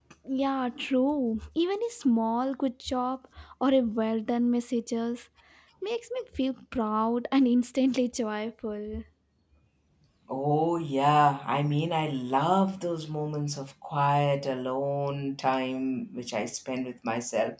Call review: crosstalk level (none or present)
none